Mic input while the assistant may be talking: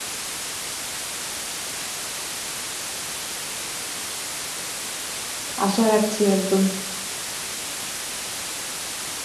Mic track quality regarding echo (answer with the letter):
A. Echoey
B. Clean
B